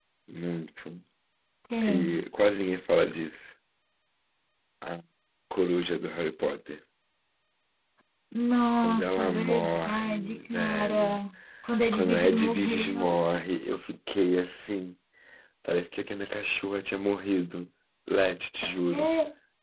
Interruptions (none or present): present